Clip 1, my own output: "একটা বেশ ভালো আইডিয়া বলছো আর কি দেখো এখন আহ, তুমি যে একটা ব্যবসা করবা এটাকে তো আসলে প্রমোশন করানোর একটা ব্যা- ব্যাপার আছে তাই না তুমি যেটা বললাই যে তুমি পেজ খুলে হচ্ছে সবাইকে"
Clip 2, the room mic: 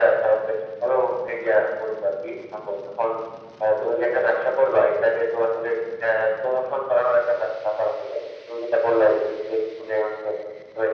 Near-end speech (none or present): none